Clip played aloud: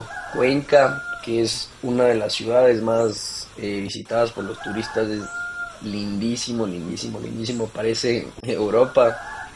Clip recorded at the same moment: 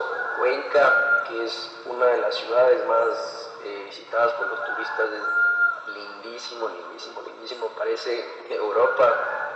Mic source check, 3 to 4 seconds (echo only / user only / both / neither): echo only